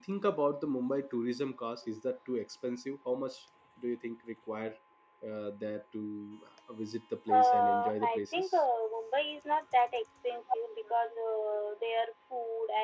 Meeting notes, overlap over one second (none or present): present